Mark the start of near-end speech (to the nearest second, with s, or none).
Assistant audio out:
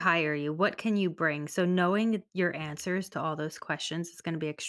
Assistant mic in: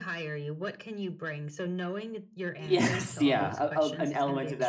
3 s